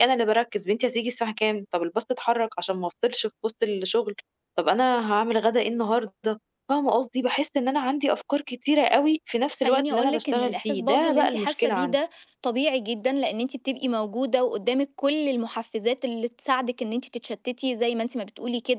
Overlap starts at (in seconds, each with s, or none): 9.6 s